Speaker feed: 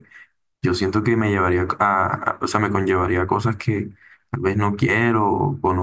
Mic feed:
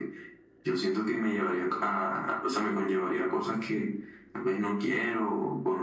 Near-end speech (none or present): none